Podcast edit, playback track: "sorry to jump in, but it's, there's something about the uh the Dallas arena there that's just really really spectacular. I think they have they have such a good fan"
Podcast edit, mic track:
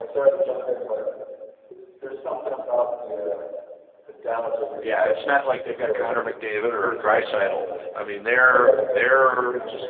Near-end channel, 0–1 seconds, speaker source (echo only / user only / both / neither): echo only